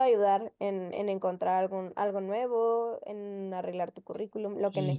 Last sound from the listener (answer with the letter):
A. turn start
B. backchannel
A